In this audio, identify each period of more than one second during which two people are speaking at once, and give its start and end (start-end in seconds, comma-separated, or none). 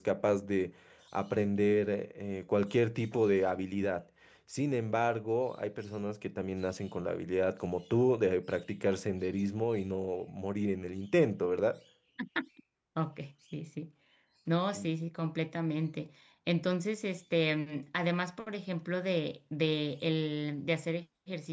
none